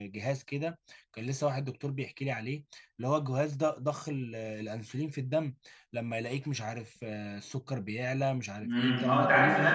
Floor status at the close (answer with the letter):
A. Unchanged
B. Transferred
B